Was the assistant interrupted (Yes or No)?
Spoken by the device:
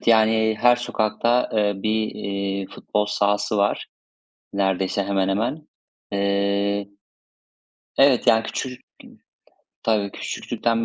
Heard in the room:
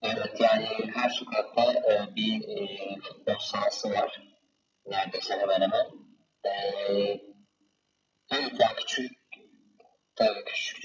No